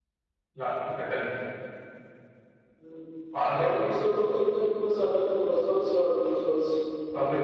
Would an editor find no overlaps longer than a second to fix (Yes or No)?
Yes